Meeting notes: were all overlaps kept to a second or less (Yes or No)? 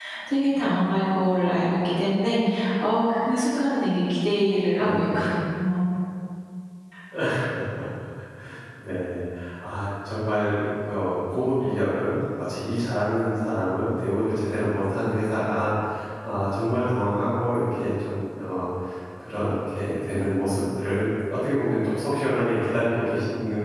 Yes